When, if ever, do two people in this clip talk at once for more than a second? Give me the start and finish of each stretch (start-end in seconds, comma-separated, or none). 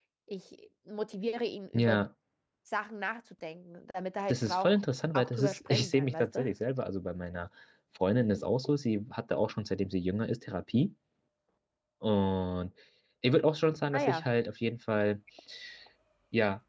5.1-6.5